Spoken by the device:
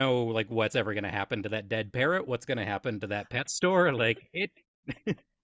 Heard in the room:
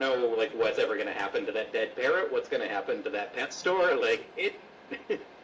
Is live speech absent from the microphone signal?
Yes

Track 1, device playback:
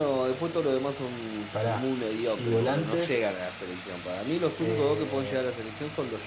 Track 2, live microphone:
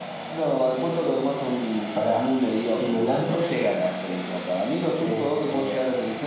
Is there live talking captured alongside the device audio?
No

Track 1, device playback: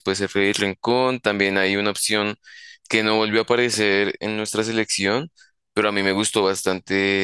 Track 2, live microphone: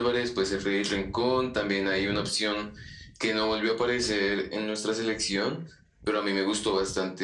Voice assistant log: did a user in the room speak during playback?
No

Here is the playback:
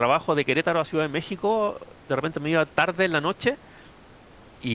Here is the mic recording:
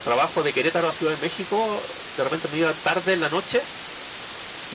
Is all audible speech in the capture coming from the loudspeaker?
Yes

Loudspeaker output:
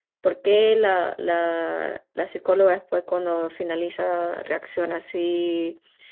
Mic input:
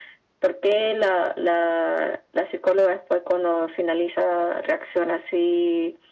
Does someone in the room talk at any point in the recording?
No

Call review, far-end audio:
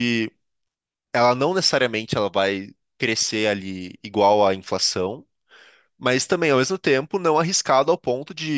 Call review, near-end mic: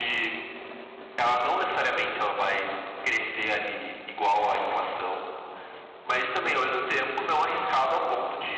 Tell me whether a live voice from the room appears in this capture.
No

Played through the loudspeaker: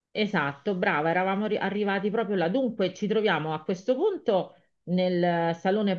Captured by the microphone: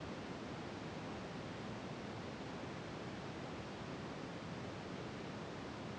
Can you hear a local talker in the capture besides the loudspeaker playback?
No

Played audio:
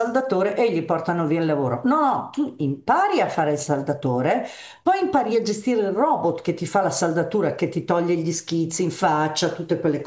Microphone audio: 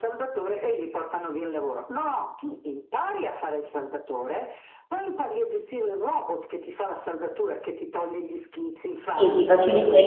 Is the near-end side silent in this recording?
No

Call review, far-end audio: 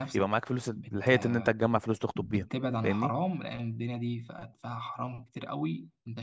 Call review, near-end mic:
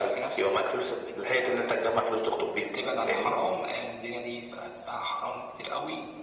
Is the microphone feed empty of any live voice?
Yes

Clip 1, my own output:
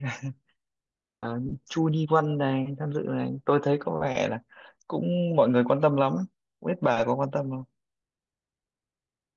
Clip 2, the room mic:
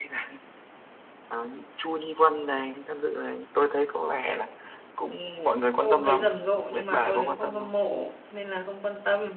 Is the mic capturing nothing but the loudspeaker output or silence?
No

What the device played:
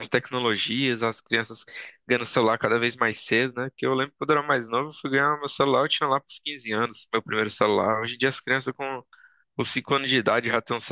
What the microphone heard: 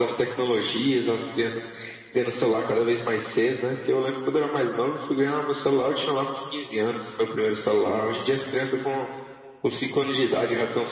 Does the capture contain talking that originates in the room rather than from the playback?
No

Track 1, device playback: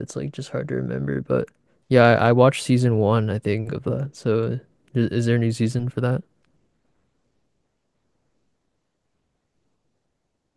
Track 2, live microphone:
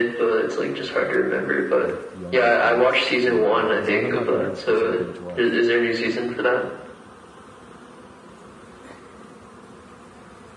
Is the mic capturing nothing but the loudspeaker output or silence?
No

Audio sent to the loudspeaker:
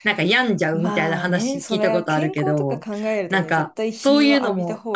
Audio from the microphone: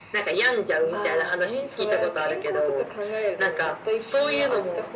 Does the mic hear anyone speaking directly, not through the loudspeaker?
No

